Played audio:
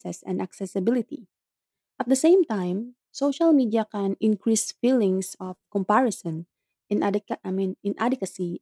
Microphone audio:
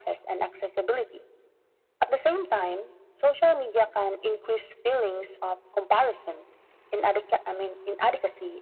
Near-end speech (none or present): none